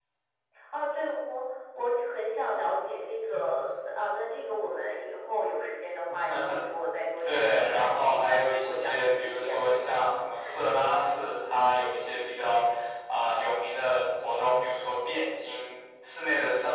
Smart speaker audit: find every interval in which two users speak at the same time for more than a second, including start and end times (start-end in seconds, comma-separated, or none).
7.2-9.8